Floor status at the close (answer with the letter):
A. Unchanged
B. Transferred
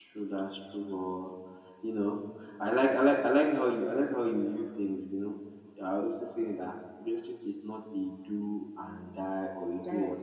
A